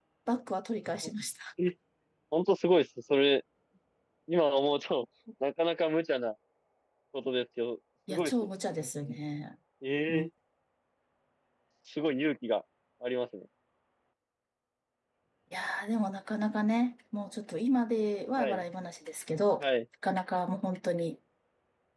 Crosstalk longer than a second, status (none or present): none